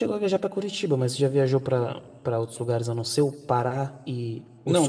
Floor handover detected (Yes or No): Yes